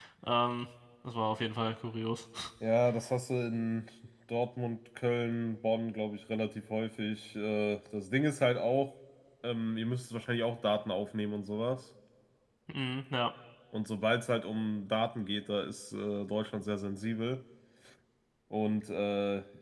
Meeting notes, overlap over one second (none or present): none